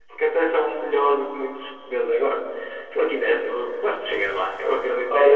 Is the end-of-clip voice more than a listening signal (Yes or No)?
Yes